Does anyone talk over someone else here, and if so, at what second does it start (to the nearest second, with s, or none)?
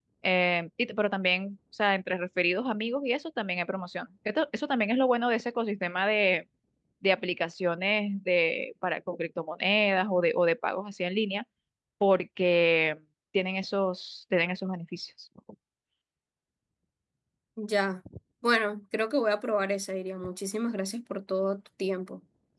none